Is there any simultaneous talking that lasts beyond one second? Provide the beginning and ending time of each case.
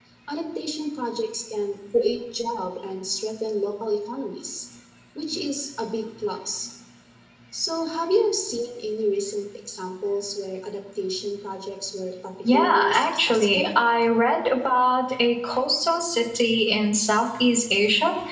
12.5-13.7

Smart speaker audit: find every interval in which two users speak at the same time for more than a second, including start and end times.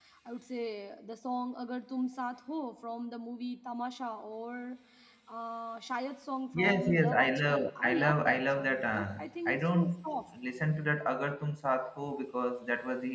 6.5-10.1

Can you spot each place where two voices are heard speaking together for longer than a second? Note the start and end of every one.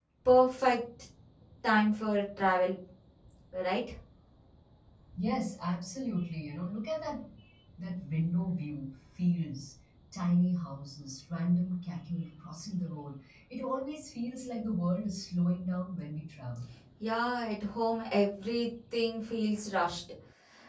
none

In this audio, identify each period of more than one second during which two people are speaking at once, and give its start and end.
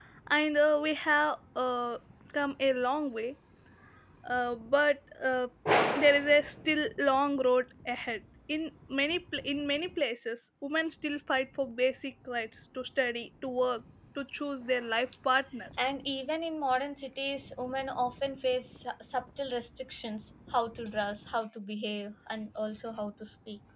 none

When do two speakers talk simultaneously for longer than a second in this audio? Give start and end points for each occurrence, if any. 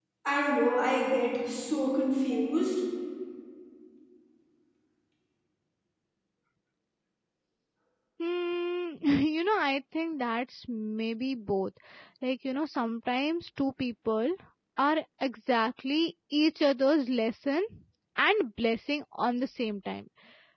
none

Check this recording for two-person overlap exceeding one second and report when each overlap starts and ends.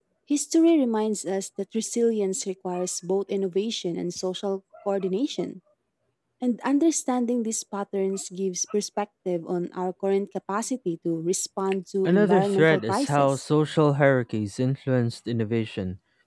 12.1-13.4

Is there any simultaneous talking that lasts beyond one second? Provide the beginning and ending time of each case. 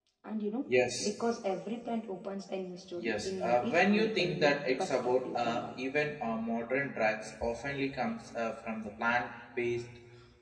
3.0-5.8

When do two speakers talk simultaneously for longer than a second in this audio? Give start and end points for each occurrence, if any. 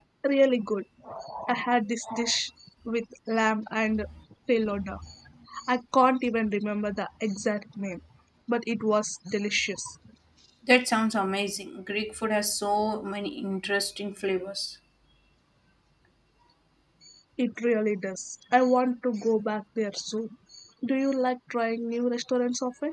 none

